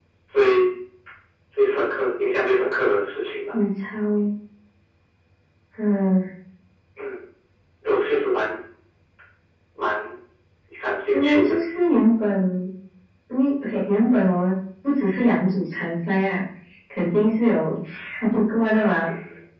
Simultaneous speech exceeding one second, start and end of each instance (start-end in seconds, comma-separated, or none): none